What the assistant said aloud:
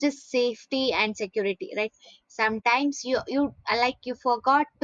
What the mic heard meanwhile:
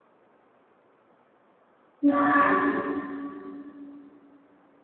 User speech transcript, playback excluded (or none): Yeah.